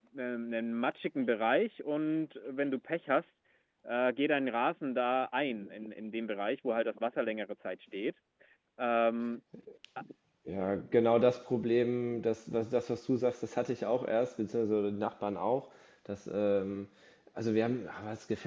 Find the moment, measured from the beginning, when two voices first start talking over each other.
none

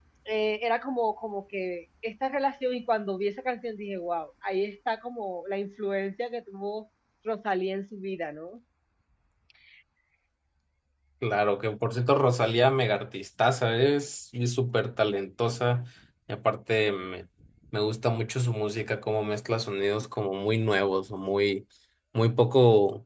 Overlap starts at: none

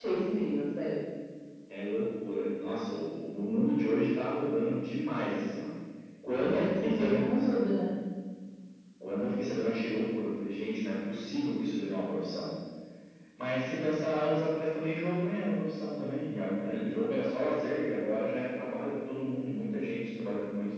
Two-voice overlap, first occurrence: 6 s

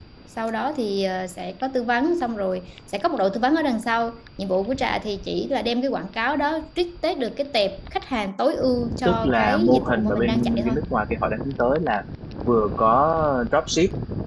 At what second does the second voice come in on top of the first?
9 s

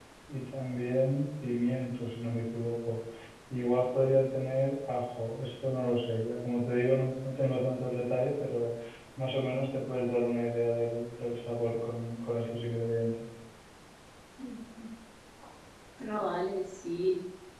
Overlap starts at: none

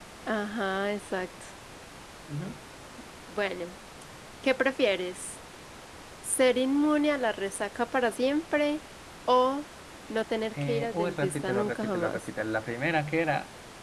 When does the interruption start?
11 s

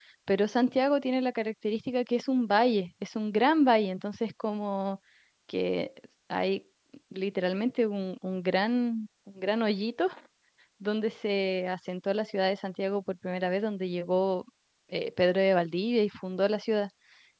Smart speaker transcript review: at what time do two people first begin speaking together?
none

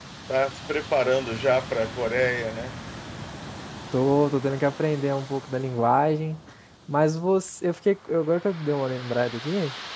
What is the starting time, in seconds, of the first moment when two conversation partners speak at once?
none

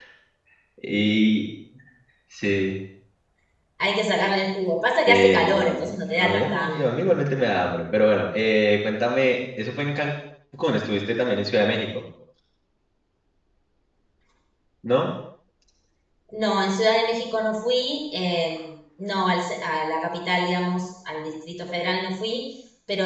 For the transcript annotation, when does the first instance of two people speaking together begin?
5 s

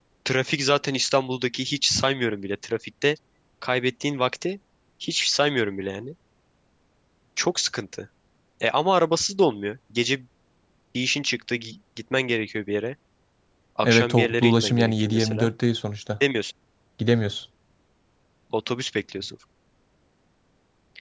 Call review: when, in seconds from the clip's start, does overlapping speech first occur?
14 s

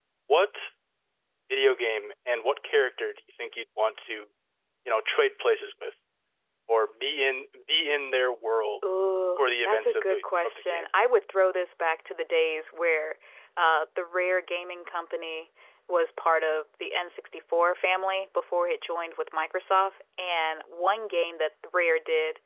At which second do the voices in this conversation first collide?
9 s

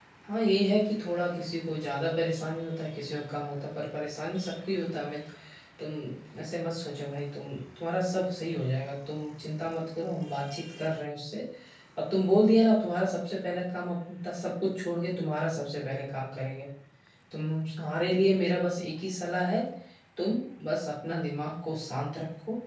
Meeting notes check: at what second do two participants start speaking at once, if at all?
none

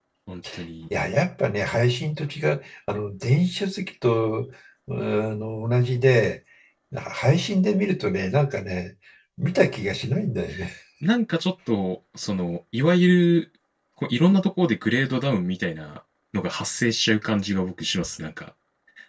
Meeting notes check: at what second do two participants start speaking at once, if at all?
none

